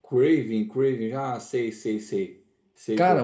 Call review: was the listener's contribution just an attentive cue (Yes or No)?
No